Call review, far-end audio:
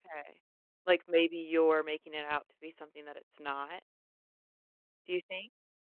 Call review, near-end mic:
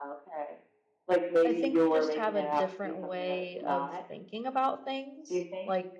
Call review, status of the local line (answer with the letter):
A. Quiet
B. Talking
B